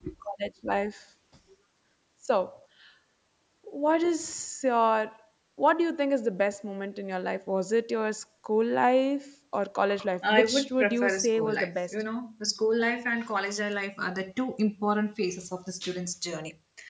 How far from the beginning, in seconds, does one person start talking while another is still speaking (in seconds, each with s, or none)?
10.2 s